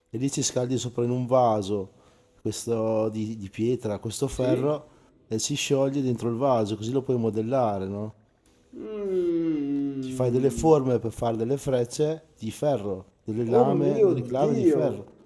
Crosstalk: present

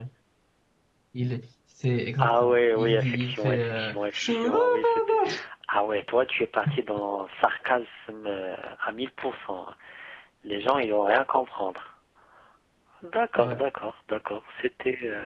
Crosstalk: present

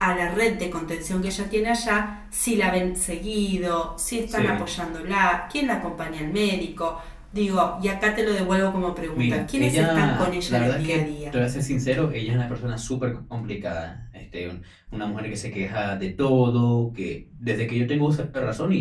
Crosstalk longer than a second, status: present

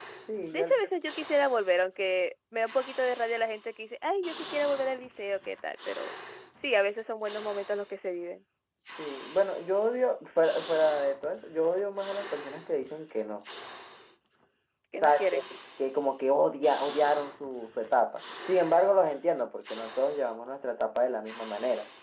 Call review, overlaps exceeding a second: none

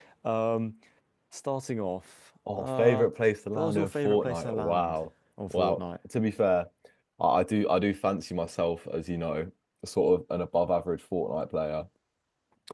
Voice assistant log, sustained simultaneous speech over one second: present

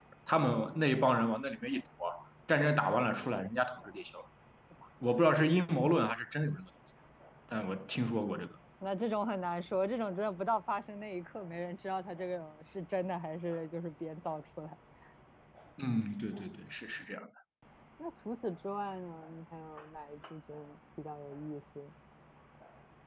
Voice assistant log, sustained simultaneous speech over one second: none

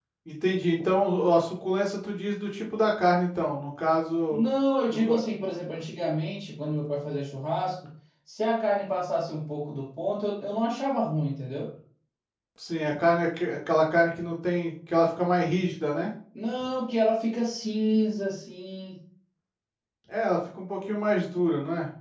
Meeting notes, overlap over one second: none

